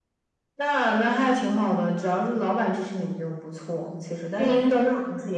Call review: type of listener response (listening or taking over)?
listening